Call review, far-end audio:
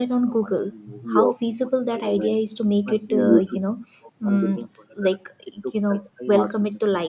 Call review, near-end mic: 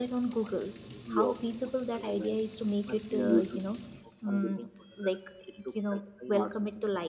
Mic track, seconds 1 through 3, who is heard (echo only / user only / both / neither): echo only